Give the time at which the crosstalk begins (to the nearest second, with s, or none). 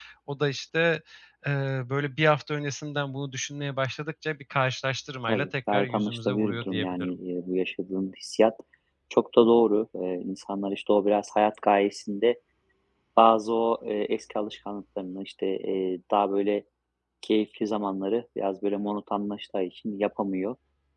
5 s